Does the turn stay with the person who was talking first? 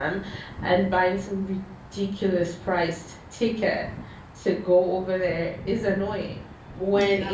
Yes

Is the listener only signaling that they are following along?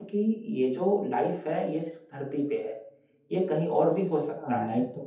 No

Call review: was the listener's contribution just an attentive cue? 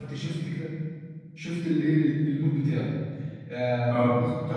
Yes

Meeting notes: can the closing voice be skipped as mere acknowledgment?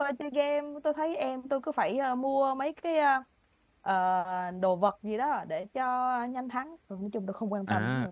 No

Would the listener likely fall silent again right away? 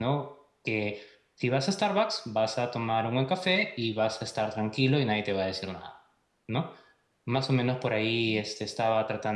Yes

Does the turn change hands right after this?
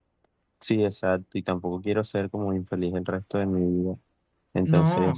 Yes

